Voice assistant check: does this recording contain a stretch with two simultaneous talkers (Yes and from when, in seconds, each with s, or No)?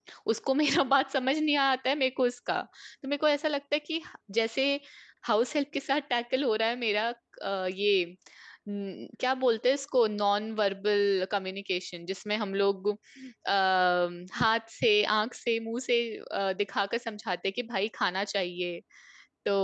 No